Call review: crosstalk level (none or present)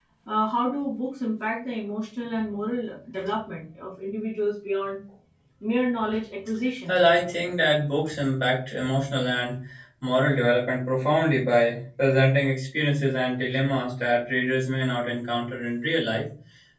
none